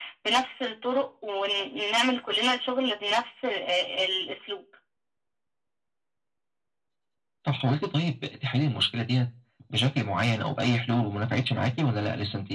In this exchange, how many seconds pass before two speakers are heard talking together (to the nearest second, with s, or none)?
none